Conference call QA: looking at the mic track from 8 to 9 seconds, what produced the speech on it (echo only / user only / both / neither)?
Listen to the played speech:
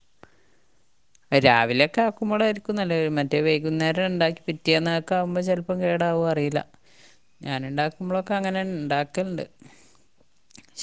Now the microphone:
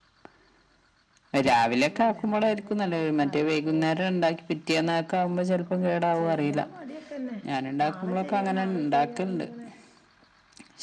both